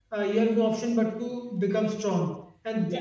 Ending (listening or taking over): listening